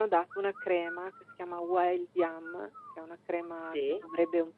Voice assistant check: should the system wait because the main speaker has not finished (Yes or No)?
Yes